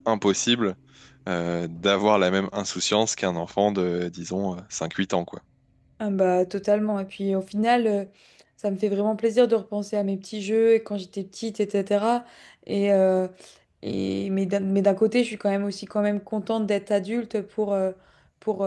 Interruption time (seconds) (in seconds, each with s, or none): none